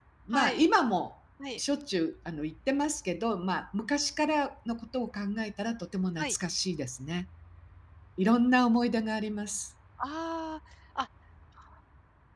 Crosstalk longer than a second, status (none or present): none